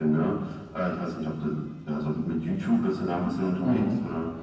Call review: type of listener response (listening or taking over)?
taking over